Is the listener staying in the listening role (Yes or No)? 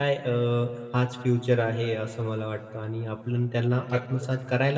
Yes